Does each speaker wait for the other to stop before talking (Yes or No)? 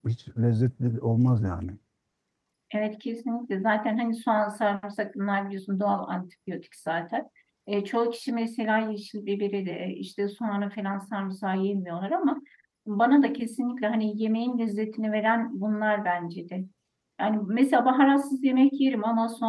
Yes